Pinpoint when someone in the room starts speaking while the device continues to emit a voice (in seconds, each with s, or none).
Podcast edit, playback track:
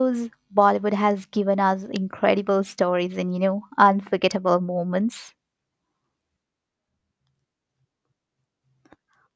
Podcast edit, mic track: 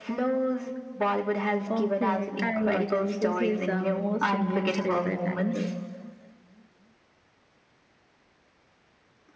1.7 s